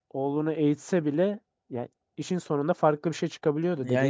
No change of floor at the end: No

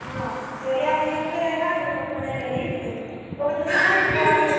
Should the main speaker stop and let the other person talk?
Yes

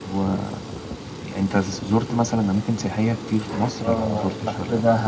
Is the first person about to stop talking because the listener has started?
Yes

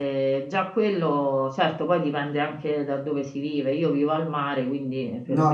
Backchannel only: No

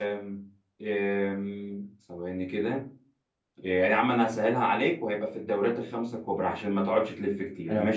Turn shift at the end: Yes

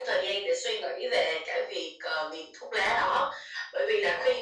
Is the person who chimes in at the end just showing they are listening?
Yes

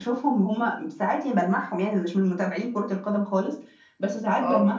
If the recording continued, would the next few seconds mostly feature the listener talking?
No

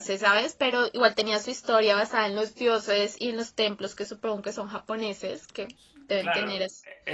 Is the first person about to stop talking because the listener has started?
Yes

